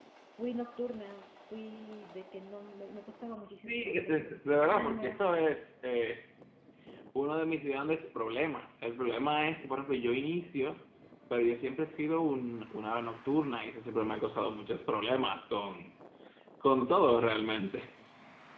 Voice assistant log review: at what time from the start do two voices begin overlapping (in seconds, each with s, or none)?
3.7 s